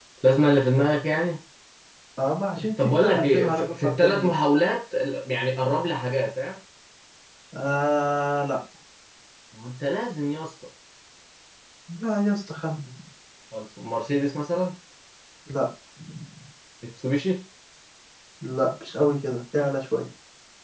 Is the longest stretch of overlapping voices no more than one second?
No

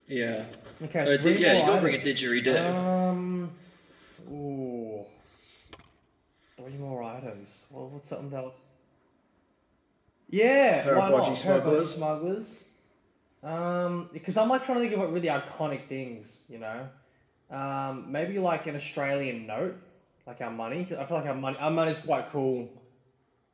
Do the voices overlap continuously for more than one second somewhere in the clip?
Yes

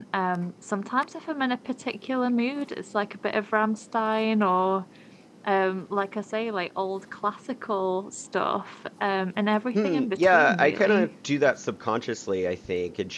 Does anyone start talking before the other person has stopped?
Yes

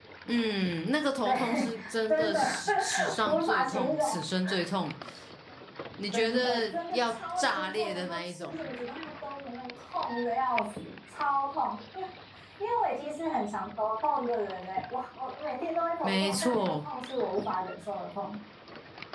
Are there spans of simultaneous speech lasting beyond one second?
Yes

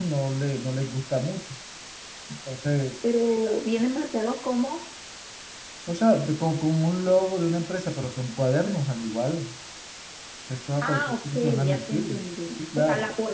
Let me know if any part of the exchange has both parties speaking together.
Yes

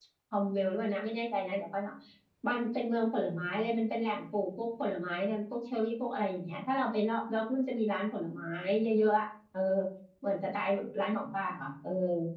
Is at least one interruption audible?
No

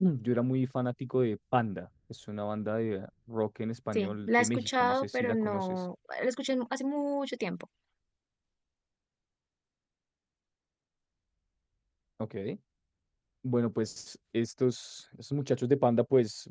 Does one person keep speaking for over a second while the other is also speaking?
Yes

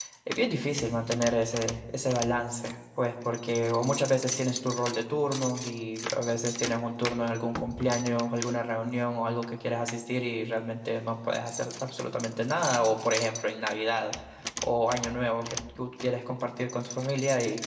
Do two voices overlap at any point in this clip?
No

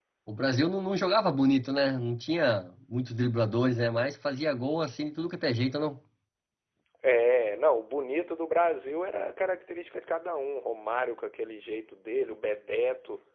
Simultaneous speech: No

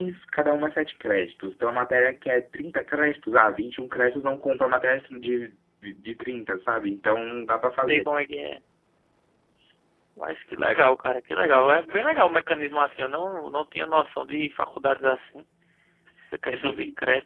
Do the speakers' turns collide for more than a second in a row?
No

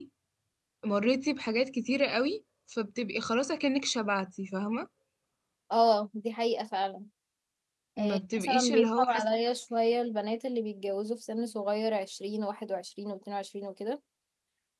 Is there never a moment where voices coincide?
No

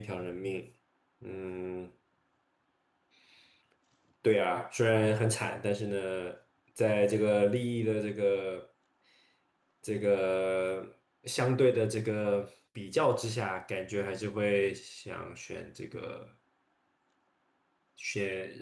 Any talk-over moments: No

